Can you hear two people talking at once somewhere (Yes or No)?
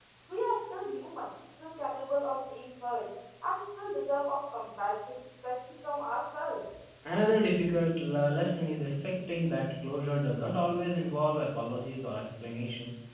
No